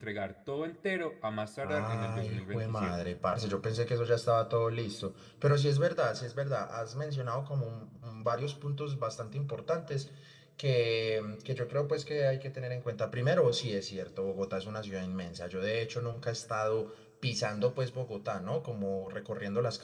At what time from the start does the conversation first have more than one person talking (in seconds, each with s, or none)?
1.6 s